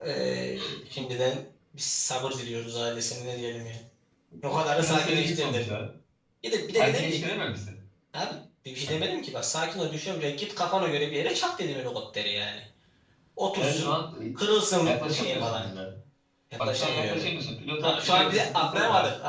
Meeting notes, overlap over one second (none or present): present